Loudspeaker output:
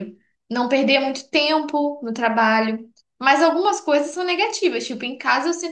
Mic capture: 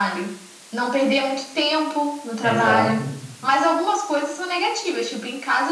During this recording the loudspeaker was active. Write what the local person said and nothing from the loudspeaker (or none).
Exato.